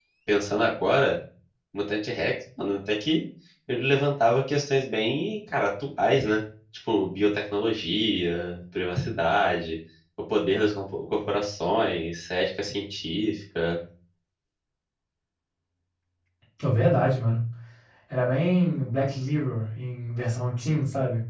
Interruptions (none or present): none